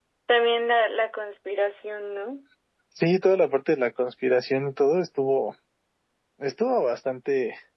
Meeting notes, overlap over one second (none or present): none